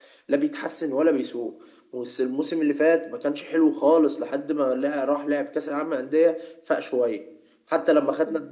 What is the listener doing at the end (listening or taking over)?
listening